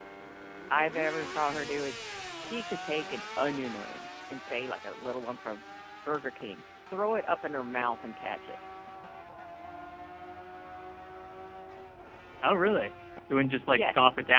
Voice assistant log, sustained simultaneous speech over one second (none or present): none